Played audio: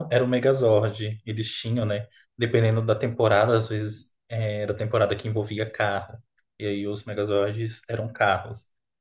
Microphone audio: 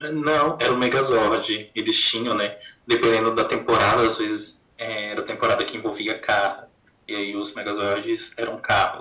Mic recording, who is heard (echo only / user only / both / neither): echo only